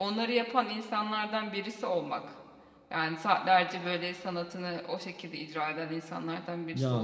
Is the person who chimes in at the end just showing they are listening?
No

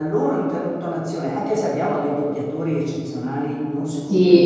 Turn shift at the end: No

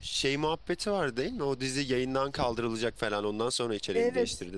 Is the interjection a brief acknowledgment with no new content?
No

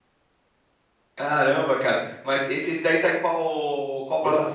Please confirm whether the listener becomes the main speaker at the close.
Yes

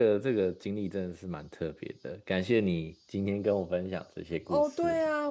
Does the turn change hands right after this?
Yes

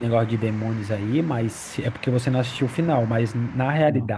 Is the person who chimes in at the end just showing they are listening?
Yes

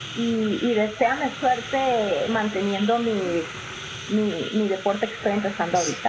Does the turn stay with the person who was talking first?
No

